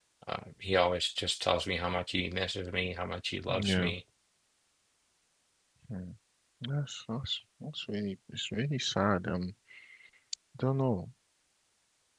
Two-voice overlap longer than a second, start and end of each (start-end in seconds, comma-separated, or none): none